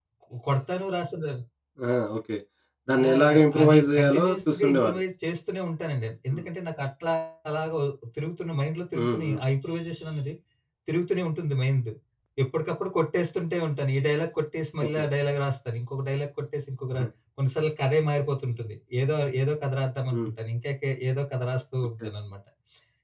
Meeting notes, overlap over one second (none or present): present